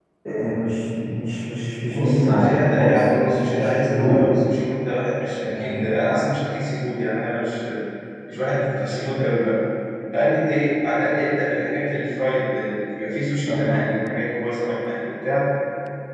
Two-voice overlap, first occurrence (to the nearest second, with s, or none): 2 s